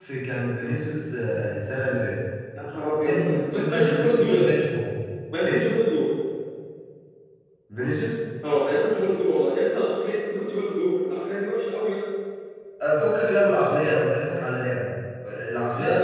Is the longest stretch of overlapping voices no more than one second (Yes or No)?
No